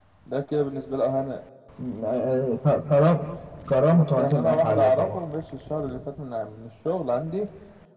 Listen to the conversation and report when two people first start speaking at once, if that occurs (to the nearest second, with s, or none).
4 s